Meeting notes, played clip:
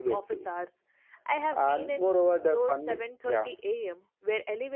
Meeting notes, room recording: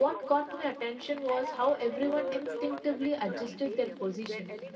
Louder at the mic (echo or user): user